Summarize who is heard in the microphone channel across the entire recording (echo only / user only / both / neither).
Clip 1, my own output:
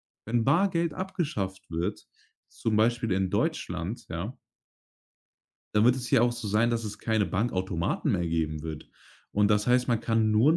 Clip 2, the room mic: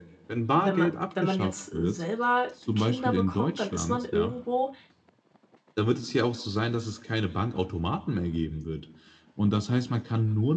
both